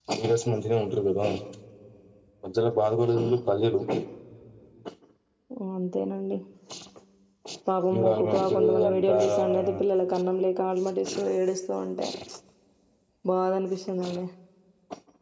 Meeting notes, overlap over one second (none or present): present